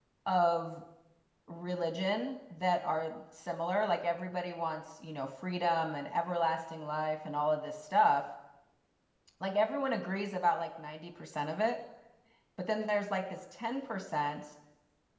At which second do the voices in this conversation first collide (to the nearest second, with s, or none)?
none